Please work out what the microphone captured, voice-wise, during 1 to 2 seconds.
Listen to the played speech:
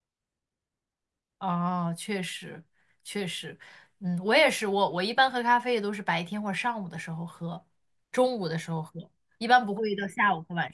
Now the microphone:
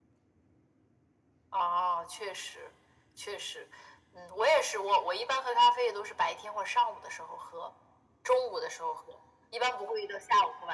echo only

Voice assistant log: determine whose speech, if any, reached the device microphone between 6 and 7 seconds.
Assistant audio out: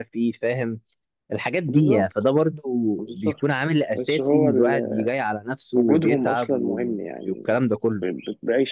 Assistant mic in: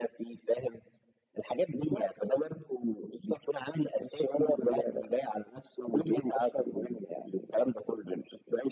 echo only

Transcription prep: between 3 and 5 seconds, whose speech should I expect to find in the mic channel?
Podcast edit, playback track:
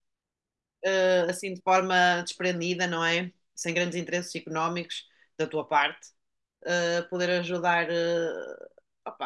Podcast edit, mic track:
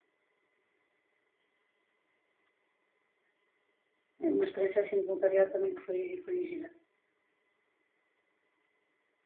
user only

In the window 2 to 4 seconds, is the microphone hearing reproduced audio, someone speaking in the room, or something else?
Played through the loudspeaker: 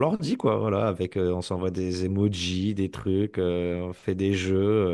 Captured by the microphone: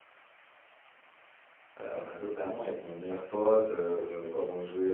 user only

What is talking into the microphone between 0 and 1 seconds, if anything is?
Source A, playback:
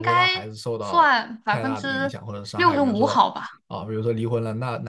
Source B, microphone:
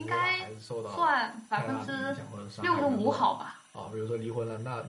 echo only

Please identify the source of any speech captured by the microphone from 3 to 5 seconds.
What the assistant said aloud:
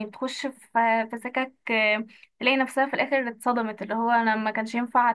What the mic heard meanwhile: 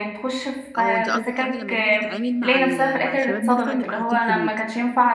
both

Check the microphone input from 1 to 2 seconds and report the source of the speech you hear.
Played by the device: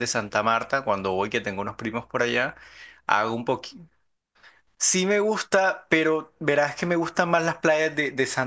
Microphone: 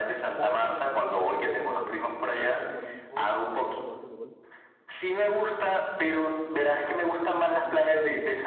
both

